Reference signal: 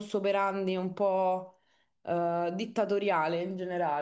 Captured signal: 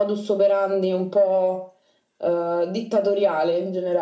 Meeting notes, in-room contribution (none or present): none